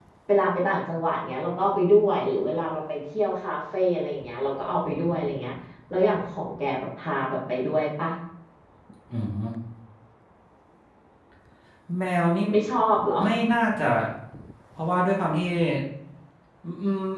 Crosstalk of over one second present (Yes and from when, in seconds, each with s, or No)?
No